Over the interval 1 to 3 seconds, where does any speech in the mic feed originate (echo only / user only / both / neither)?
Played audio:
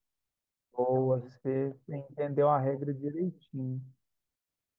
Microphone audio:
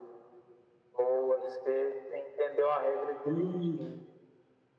echo only